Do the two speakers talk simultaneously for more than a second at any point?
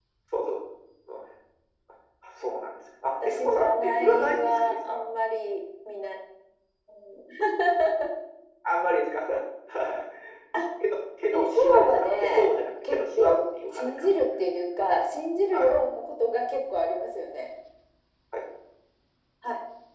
Yes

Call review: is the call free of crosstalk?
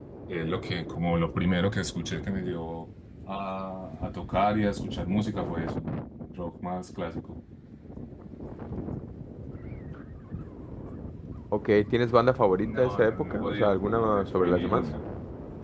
No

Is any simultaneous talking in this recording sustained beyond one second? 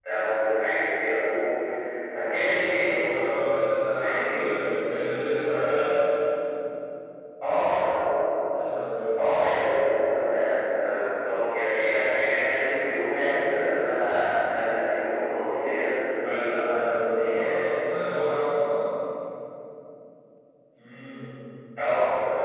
Yes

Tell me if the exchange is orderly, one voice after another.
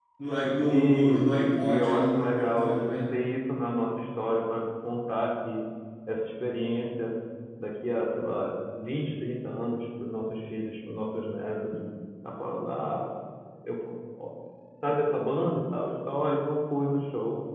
No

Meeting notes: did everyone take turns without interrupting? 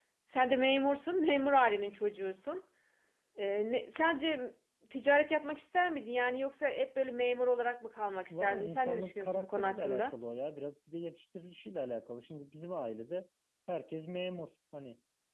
No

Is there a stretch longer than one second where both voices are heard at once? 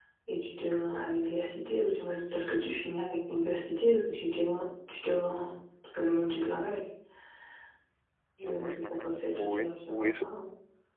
Yes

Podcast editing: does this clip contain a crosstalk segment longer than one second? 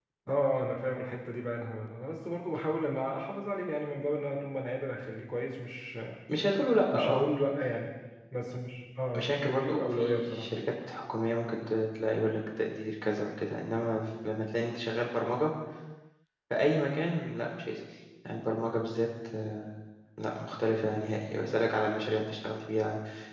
Yes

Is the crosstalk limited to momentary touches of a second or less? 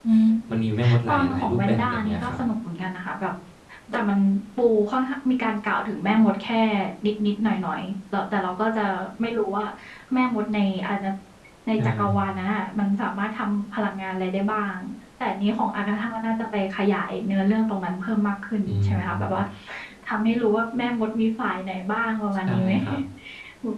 No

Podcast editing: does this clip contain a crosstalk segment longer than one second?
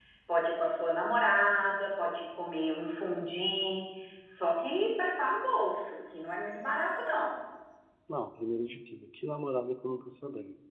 No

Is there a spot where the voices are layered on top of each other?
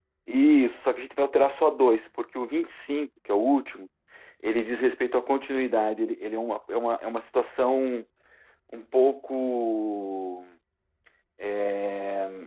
No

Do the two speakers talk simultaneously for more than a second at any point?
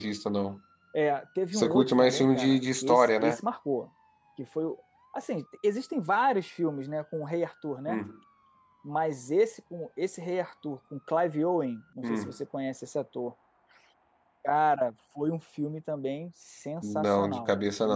Yes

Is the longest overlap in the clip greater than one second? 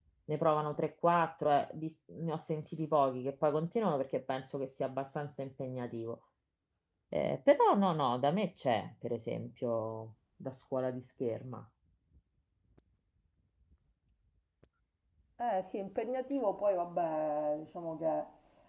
No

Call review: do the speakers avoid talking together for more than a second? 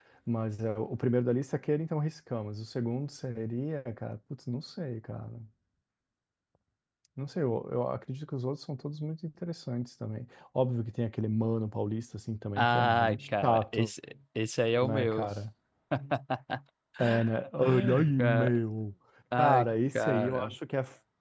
No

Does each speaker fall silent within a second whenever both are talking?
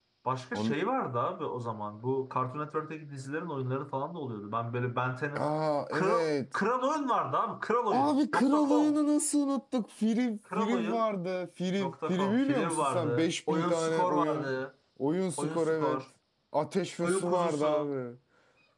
No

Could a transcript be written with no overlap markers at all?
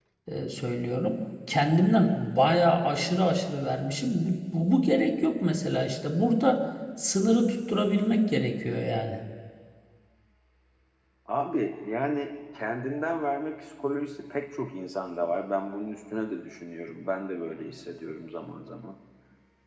Yes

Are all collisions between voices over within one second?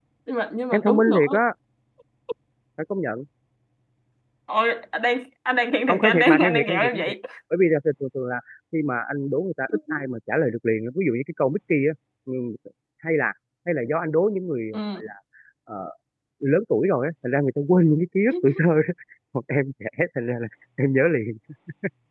No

